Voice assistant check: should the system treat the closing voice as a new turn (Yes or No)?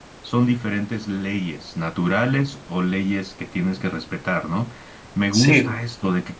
No